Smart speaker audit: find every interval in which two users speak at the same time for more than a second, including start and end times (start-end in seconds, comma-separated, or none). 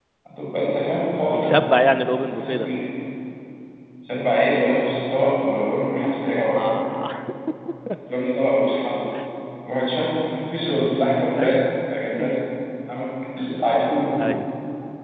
none